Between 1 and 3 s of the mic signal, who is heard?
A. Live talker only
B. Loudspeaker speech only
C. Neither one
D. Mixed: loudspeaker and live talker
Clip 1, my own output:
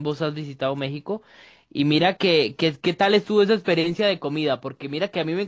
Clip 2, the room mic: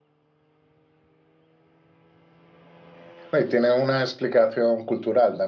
C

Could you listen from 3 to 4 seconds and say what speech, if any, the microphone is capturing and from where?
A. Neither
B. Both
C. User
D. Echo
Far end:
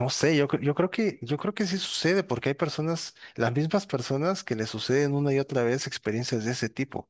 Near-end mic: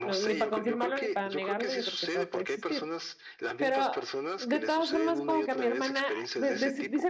B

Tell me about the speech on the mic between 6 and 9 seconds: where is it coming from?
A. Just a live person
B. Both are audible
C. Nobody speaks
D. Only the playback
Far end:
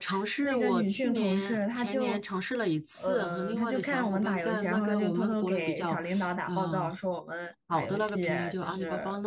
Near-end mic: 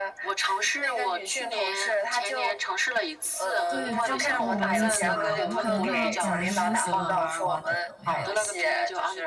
B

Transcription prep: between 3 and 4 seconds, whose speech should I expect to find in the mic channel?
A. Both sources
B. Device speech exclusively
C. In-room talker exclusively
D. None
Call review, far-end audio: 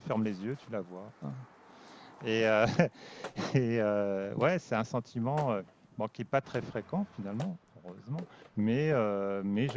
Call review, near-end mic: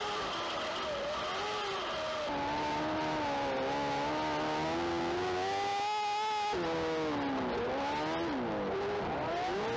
D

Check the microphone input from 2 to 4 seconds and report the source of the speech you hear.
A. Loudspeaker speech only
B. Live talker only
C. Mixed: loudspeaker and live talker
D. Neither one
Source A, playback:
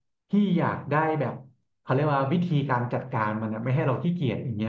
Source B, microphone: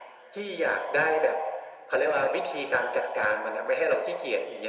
A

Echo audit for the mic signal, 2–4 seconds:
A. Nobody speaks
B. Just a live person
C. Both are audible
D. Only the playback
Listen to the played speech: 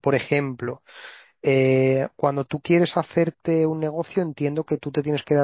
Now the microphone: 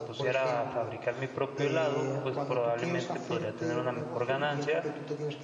C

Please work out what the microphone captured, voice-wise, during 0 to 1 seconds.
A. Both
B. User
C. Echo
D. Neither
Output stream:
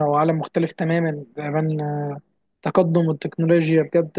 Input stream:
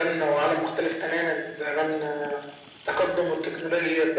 C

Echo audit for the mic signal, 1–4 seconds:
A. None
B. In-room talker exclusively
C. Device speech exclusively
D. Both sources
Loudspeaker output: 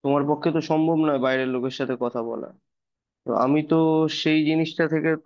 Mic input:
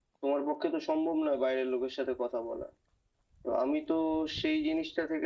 C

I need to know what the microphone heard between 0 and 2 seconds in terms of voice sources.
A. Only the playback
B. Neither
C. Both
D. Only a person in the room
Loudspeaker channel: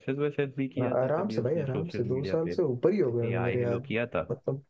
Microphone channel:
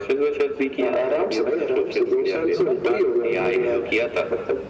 A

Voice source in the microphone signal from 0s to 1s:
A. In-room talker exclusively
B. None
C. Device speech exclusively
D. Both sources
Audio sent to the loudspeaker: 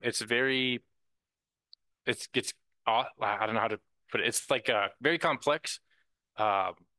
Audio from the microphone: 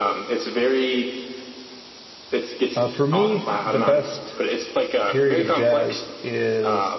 C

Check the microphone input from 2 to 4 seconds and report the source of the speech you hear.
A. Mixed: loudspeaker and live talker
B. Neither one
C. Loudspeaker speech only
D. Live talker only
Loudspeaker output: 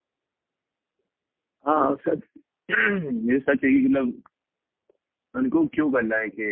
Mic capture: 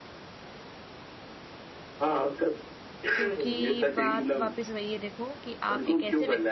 A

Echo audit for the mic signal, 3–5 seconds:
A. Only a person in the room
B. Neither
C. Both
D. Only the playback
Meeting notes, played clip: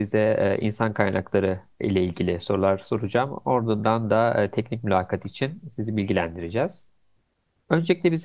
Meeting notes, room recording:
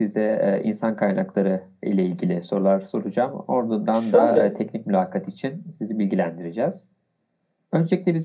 C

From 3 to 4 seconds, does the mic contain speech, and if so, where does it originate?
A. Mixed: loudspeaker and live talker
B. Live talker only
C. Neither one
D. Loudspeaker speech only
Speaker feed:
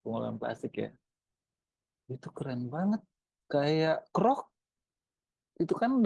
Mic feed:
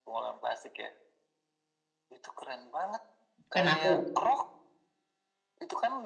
A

